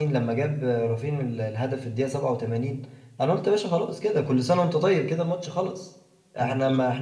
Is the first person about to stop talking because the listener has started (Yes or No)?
No